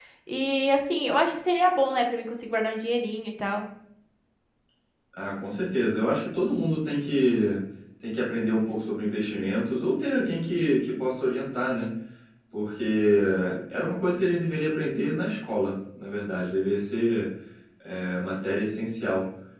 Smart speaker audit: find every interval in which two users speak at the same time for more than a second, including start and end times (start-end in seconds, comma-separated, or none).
none